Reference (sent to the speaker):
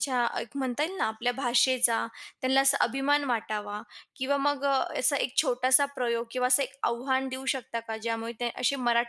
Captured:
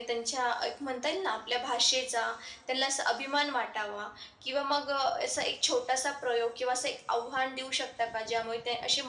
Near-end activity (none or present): none